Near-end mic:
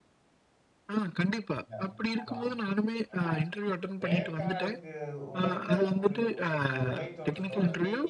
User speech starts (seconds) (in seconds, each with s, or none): 1.8 s